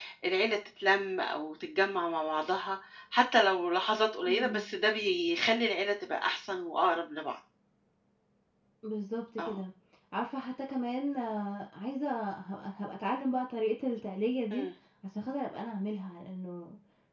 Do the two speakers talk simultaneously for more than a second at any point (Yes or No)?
No